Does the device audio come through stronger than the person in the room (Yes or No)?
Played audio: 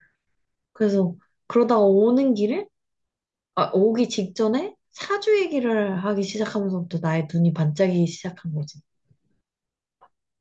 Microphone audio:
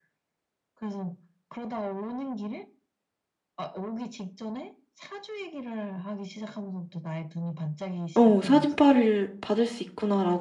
No